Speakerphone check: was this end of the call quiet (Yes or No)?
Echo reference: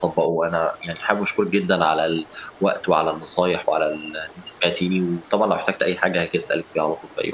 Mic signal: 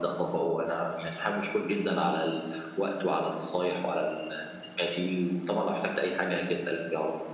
Yes